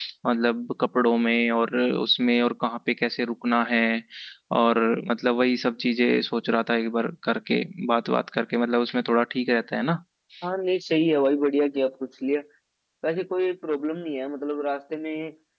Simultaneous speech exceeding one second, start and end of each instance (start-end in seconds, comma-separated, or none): none